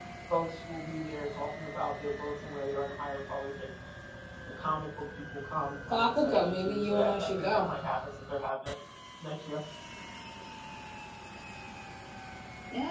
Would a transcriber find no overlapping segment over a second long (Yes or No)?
No